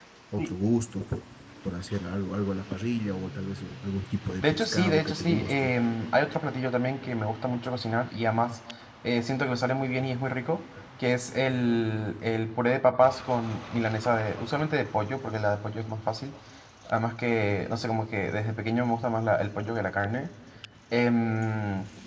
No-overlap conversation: No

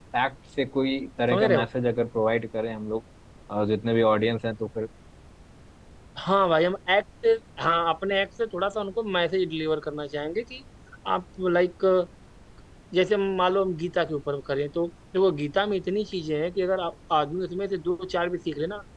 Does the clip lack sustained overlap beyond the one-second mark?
Yes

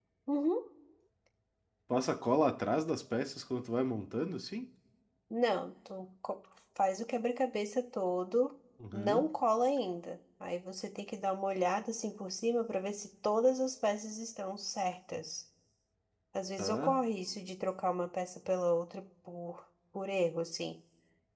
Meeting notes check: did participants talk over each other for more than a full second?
No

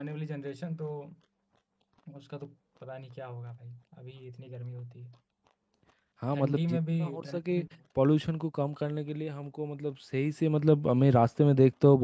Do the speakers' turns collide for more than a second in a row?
Yes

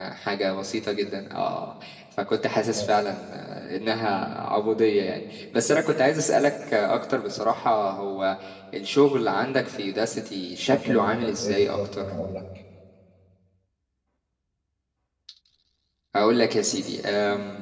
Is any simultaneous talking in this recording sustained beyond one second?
Yes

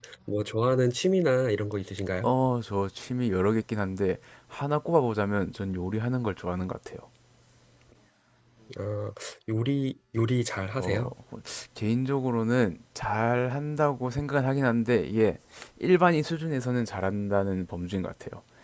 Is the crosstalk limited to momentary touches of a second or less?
Yes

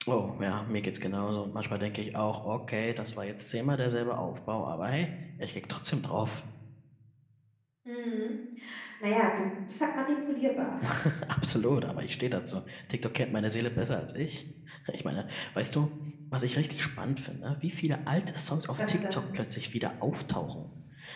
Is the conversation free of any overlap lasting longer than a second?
Yes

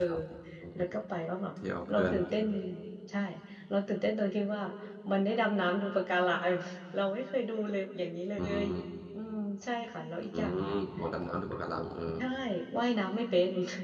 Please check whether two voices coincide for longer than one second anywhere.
No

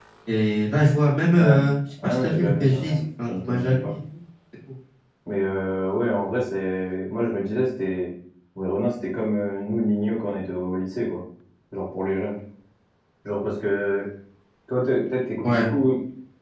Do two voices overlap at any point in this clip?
Yes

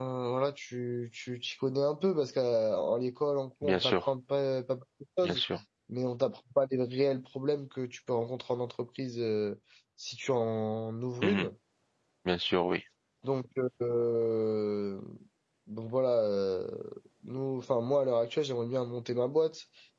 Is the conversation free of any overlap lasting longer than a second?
Yes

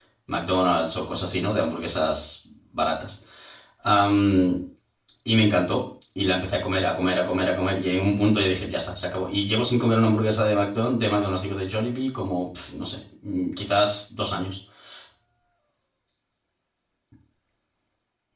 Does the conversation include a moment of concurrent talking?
No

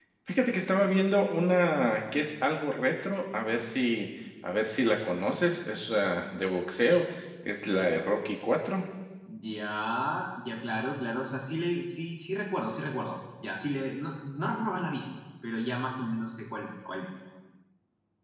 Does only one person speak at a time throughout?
Yes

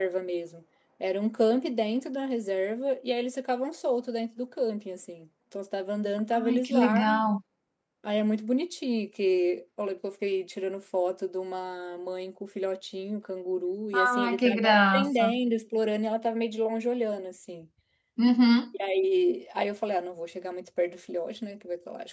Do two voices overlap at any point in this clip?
Yes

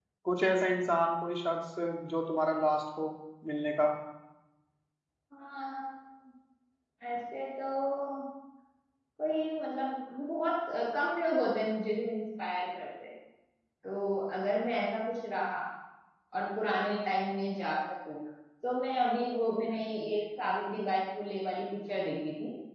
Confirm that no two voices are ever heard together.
Yes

